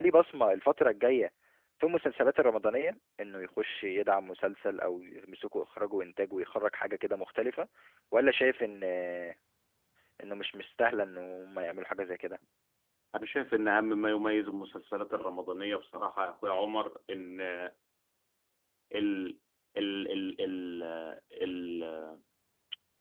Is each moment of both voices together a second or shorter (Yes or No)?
Yes